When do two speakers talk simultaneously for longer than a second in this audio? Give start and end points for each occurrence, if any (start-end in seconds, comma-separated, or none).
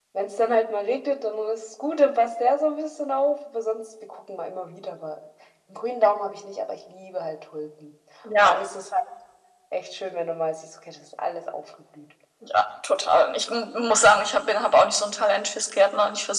none